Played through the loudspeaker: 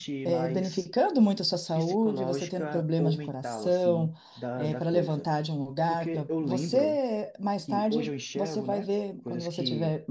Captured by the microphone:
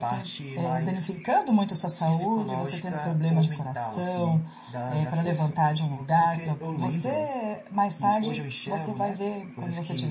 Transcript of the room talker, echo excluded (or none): none